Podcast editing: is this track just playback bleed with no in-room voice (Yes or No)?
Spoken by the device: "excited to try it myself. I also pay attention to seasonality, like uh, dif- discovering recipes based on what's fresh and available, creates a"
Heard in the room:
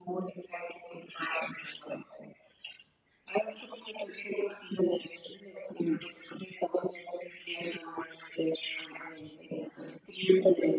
Yes